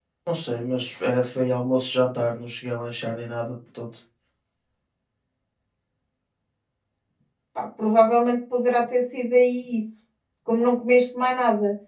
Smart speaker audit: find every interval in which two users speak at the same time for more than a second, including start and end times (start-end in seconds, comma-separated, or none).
none